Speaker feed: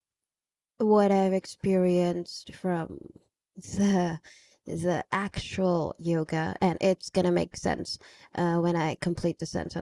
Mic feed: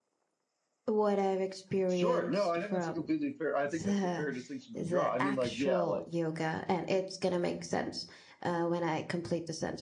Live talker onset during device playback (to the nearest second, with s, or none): 2 s